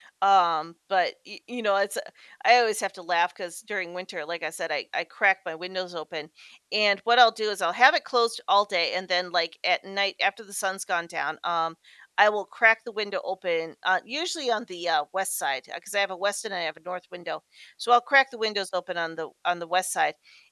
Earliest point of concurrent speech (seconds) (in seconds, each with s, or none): none